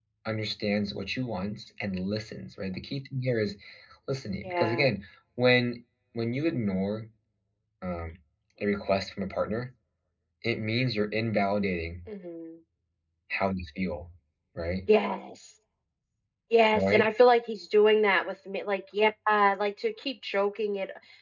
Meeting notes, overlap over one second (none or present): none